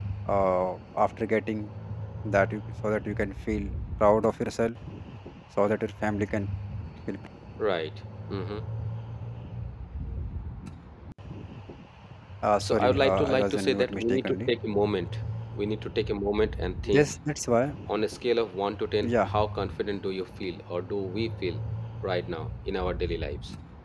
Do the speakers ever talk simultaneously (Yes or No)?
Yes